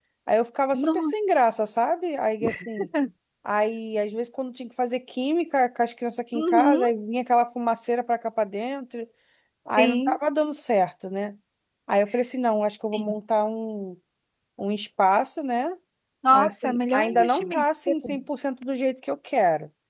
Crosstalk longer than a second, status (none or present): present